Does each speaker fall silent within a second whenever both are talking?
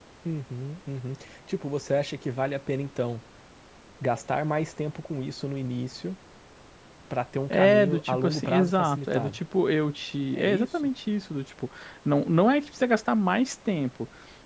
No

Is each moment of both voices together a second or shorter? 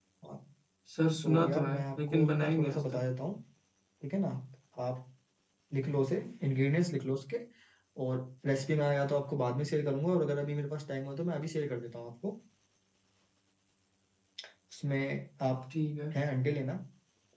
No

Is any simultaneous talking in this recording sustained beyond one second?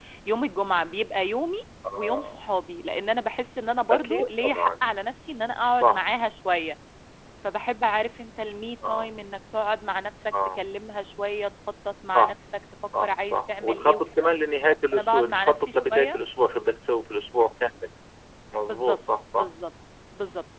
Yes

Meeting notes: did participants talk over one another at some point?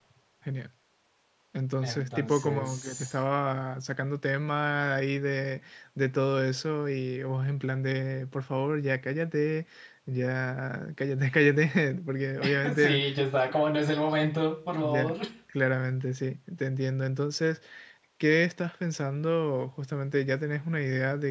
Yes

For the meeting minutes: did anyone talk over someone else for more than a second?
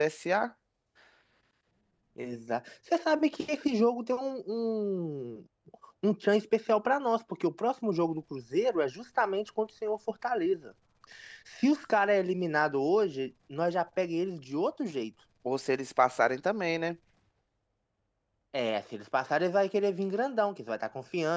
No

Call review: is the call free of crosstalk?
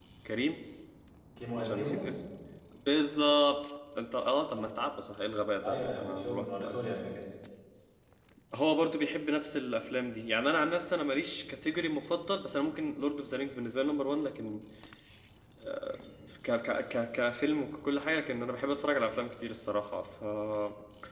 No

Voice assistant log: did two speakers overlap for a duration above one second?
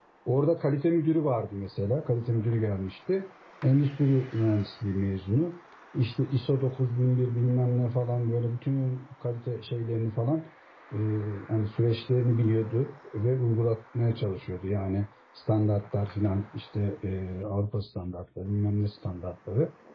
No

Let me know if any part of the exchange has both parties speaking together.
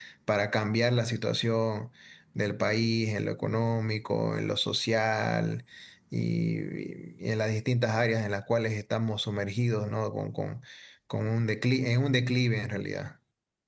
No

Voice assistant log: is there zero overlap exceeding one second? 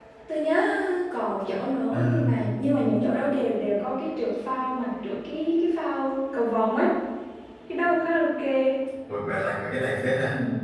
Yes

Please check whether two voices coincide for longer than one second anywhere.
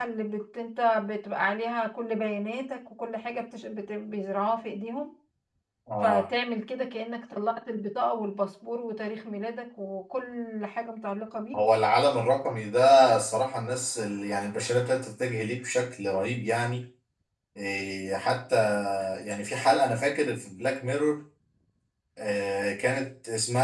No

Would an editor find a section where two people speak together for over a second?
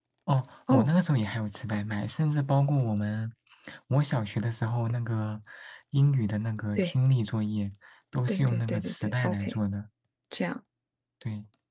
Yes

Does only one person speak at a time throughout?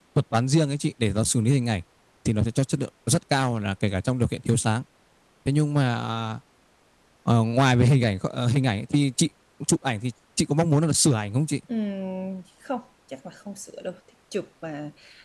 Yes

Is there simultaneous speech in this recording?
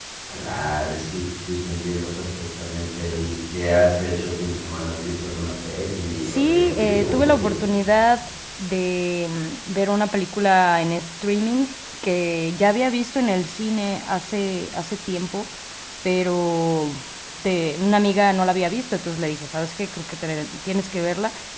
Yes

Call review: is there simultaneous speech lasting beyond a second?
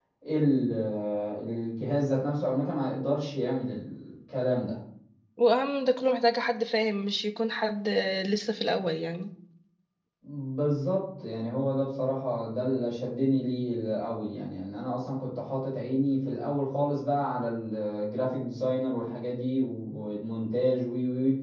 No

